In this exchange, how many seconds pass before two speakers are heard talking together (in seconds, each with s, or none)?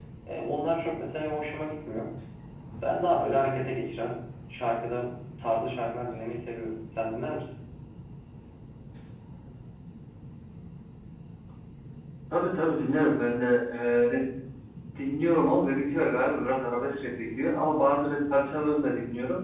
none